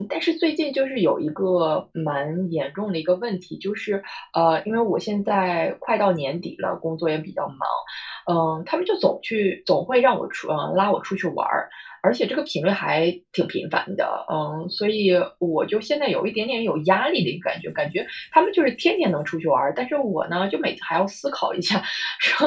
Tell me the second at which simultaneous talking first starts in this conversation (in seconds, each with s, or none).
none